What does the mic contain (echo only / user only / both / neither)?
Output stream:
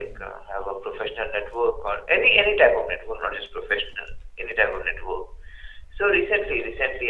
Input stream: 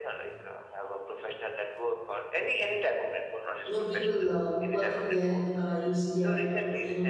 both